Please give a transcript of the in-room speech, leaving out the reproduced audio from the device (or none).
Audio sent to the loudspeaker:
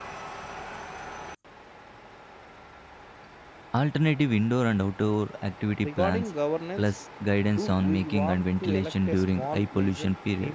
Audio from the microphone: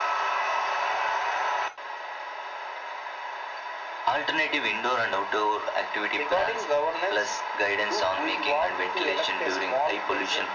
none